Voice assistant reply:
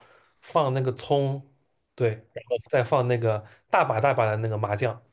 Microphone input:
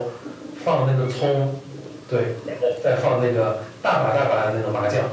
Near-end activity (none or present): none